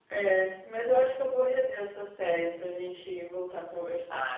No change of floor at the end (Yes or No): No